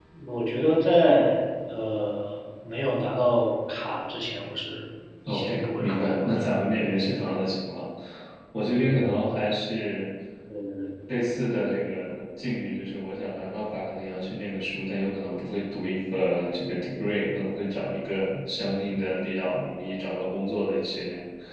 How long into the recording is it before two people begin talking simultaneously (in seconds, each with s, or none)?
5.3 s